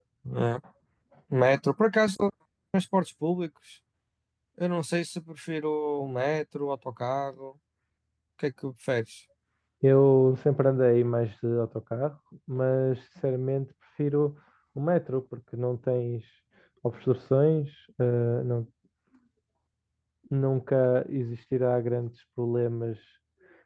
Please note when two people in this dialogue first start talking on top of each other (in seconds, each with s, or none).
none